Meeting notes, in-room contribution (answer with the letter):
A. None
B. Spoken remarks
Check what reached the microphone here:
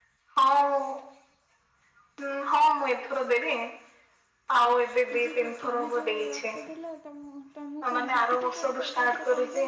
B